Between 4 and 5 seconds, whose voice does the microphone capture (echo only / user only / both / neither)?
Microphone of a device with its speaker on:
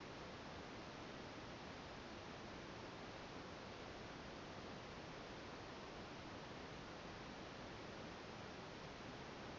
neither